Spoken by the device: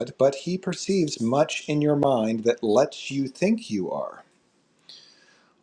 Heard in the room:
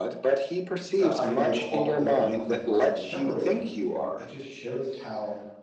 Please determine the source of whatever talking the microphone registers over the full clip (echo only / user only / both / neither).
both